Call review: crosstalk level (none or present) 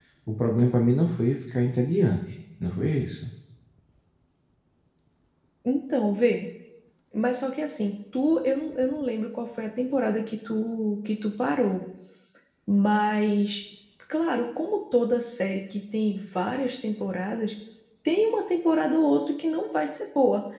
none